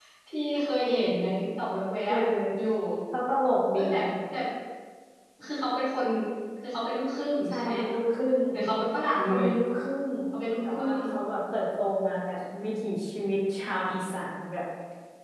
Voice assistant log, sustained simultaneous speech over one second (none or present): none